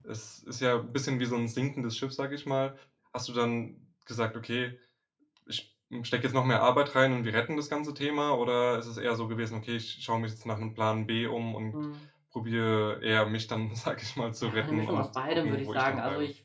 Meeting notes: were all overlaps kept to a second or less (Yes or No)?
No